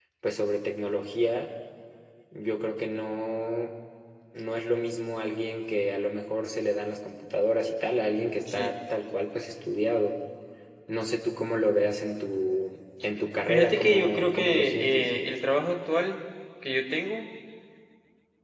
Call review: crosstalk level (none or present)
present